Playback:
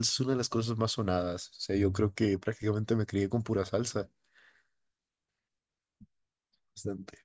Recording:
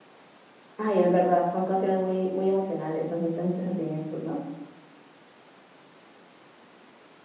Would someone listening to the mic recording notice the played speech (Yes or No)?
No